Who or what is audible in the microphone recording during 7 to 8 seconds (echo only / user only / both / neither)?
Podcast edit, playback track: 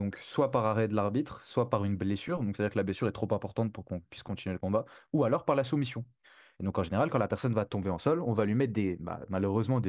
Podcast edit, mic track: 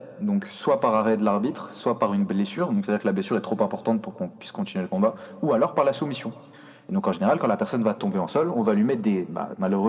echo only